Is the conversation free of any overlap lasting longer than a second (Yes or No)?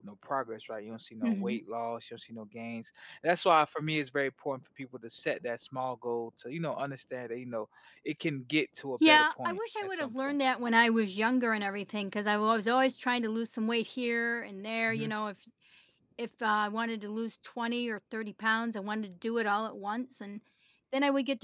No